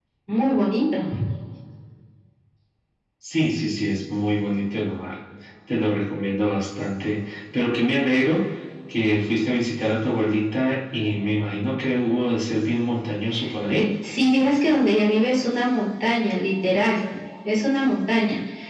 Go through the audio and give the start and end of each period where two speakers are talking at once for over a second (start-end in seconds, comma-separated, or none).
none